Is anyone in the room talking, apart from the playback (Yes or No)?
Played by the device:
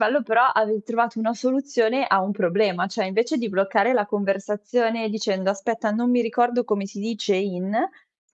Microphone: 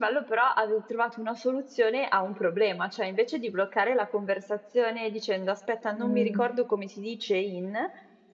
Yes